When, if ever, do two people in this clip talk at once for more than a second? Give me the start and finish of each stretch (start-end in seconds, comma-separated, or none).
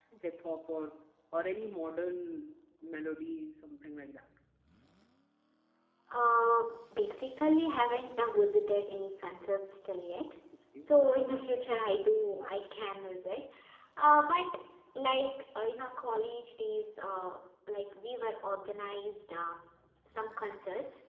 none